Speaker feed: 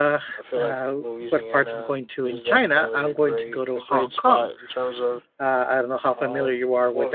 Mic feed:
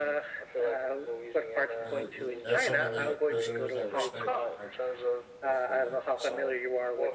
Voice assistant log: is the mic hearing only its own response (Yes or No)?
No